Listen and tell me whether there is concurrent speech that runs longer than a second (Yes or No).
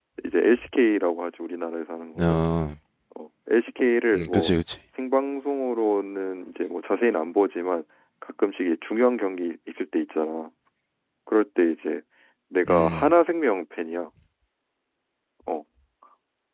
No